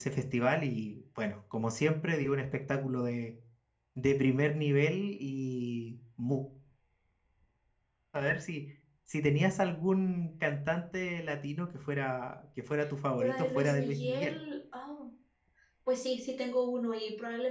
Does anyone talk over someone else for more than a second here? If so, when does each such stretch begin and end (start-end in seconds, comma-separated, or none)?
13.2-14.4